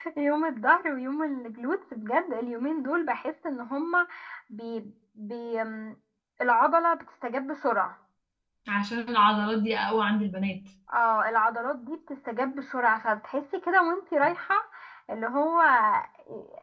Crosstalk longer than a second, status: none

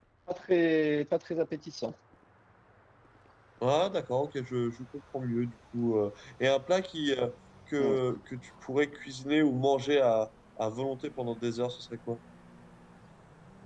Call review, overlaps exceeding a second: none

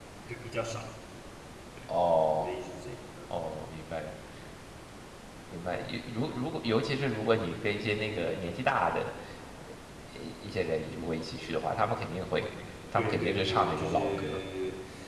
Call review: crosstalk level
present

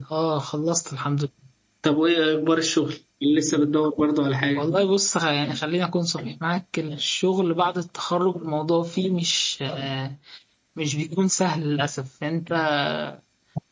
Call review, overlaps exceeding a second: none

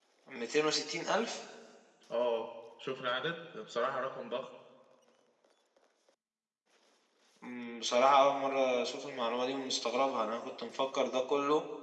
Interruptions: none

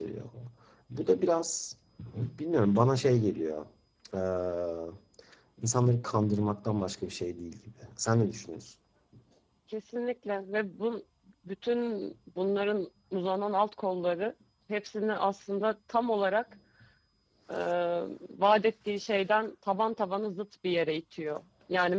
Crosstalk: none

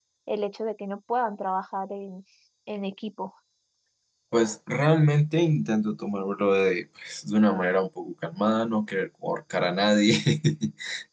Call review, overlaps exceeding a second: none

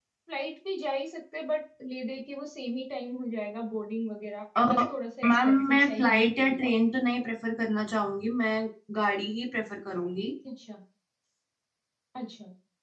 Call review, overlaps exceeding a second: present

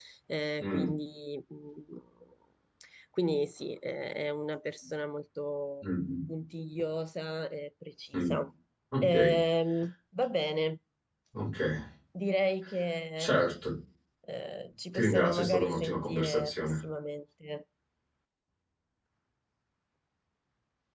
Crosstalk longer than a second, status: present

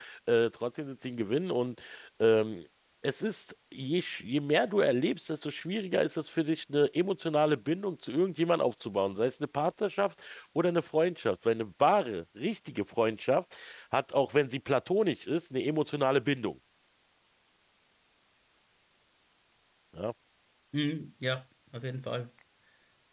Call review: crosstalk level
none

